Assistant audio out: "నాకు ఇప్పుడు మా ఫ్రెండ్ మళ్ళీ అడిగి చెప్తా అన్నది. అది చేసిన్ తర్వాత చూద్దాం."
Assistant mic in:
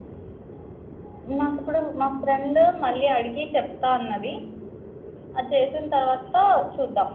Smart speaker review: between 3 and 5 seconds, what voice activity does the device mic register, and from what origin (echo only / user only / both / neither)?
echo only